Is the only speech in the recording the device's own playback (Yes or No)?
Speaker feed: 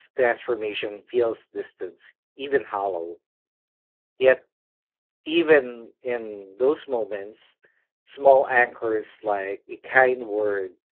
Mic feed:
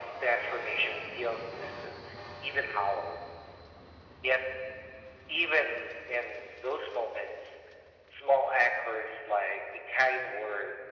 Yes